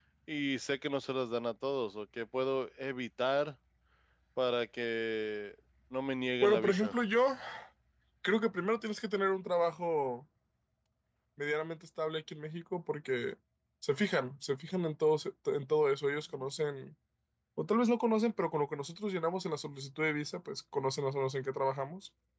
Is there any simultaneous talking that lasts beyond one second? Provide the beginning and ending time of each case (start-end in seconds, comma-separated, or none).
none